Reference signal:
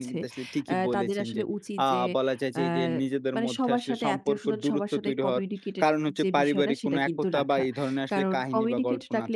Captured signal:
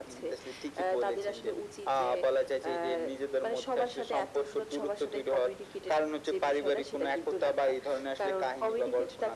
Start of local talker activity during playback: none

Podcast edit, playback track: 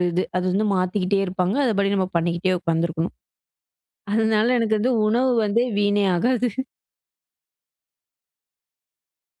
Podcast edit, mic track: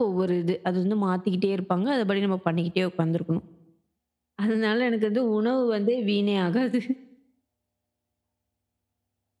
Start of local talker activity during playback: none

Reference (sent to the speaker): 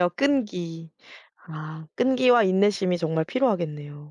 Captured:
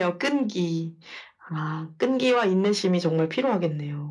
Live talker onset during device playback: none

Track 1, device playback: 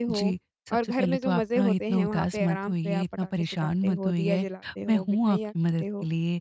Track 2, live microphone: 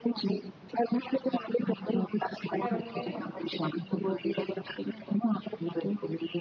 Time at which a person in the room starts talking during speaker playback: 2.5 s

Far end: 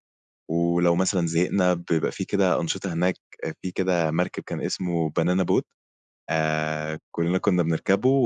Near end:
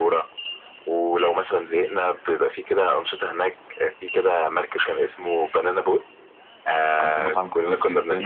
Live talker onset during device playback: 6.9 s

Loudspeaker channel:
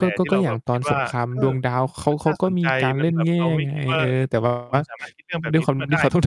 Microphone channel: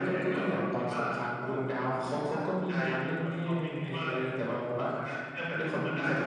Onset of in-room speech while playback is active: none

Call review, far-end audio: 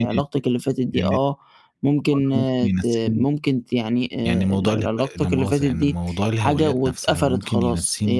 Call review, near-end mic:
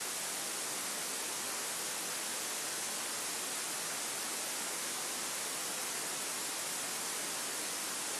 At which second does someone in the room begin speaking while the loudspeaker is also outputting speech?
none

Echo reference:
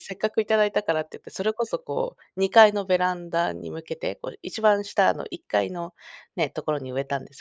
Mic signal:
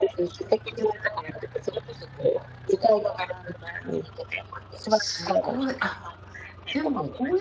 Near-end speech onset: 4.8 s

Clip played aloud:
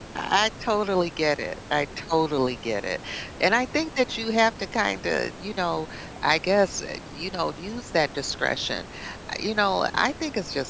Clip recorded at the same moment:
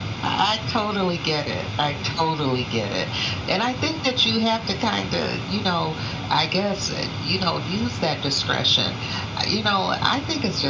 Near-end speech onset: none

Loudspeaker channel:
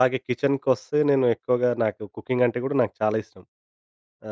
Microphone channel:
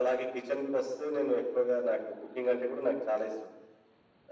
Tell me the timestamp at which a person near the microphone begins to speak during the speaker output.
none

